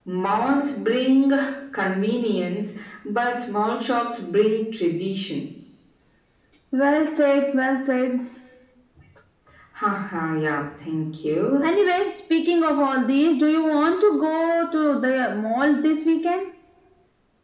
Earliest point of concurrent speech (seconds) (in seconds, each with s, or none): none